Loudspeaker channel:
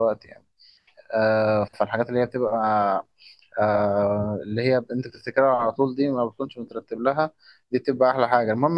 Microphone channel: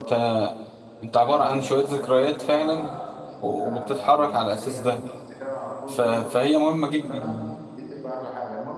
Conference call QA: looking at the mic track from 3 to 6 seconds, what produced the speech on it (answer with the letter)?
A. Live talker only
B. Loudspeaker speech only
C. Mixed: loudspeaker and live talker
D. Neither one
C